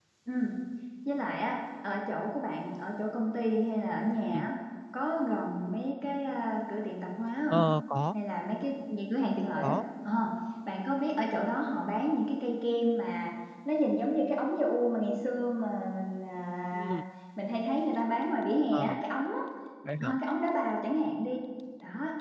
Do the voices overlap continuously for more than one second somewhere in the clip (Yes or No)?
No